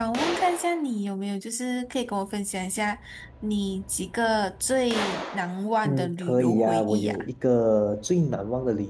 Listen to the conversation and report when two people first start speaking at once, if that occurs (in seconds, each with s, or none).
5.8 s